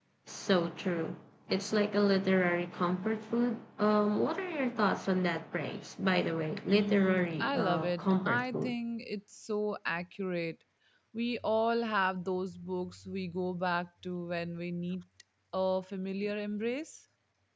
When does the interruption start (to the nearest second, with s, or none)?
7 s